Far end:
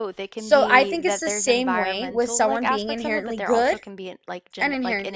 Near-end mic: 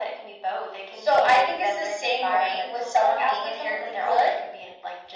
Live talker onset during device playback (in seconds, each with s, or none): none